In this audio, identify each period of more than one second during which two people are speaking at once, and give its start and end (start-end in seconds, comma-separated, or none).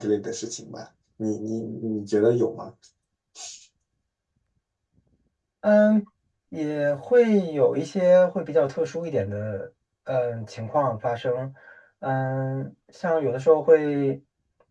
none